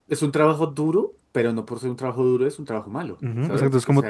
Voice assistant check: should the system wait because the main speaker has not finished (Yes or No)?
No